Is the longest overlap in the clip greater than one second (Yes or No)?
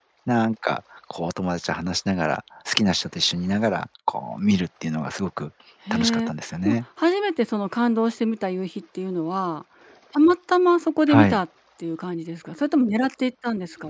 No